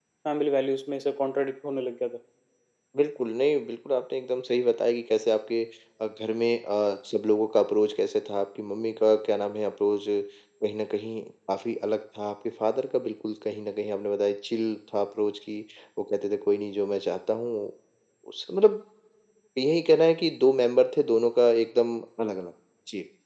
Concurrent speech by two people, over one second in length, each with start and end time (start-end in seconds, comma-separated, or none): none